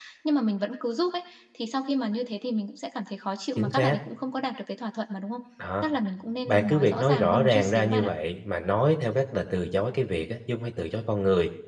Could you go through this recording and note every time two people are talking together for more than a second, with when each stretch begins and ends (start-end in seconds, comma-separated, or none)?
6.5-8.1